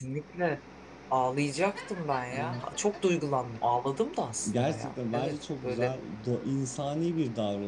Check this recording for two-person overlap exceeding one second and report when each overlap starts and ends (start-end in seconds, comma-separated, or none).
4.5-5.9